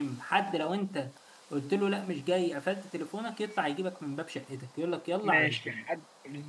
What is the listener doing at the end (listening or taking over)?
taking over